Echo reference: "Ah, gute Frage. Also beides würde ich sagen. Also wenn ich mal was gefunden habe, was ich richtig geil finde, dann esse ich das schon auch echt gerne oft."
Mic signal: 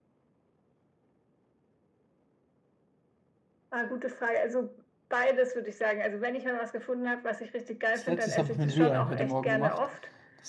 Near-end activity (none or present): present